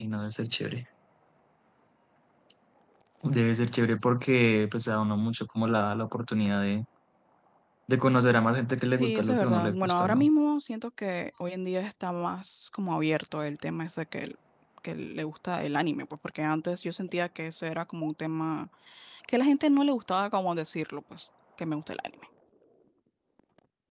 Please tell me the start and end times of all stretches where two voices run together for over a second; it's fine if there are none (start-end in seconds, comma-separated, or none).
9.0-10.3